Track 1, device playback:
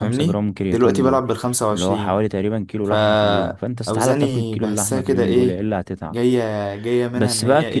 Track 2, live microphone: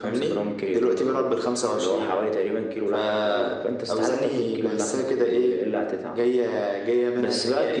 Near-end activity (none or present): none